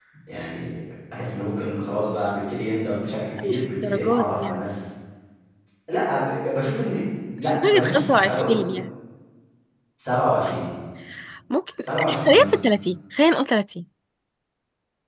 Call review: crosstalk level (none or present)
present